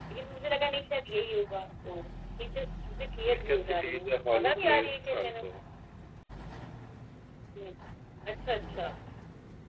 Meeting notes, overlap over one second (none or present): present